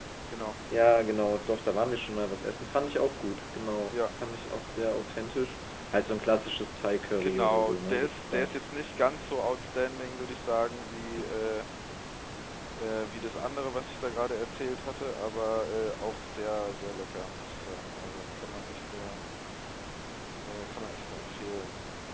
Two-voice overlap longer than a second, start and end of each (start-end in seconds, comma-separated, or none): 7.2-8.5